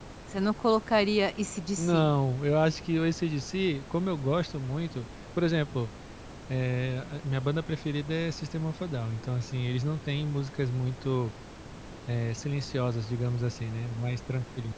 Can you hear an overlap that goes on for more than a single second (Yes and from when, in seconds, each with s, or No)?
No